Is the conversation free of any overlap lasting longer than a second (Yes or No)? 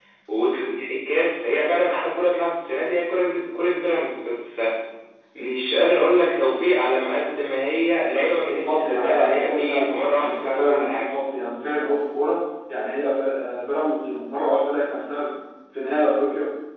No